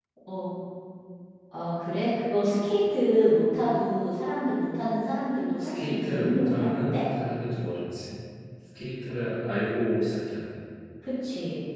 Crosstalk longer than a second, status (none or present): present